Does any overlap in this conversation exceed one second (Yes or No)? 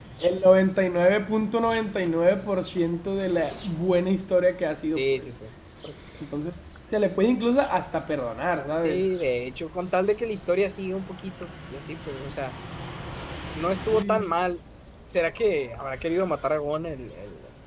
No